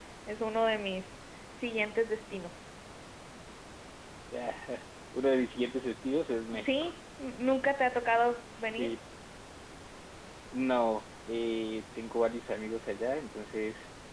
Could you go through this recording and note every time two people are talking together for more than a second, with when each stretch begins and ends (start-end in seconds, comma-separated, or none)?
none